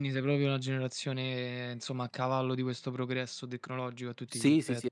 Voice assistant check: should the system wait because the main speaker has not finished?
No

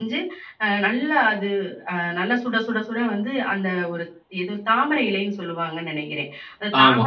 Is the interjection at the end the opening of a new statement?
No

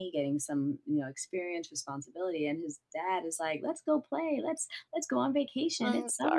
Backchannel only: Yes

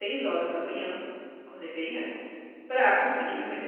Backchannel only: Yes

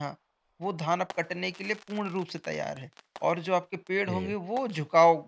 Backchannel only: Yes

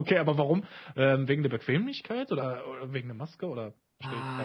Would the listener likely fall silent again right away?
No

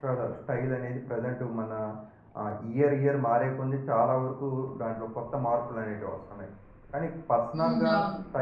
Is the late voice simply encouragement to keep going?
Yes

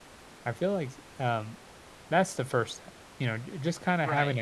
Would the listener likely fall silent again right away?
Yes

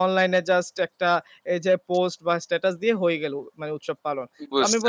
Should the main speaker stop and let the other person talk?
No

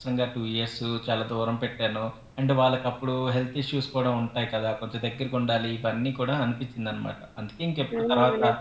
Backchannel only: No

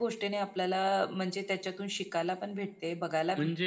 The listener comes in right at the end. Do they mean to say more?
Yes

